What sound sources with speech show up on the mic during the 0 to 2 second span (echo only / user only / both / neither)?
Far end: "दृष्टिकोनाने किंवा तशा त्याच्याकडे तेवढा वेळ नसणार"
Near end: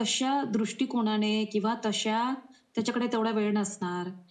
echo only